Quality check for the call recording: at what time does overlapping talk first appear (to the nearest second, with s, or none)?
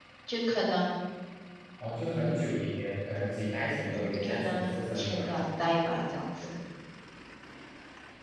4 s